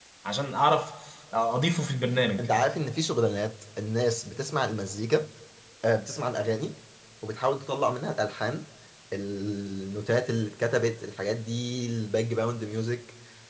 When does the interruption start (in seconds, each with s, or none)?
none